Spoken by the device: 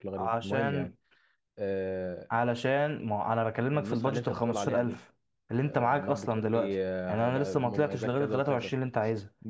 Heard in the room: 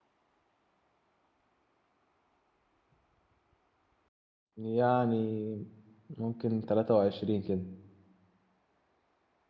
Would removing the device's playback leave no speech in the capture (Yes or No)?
No